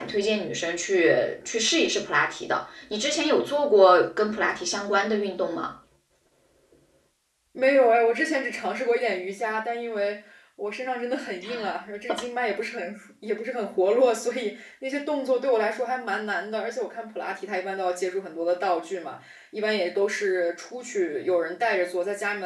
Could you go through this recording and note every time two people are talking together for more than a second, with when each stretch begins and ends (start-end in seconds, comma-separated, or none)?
none